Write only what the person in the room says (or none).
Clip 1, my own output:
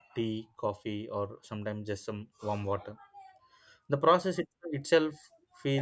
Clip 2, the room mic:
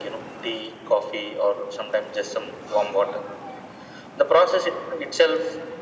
none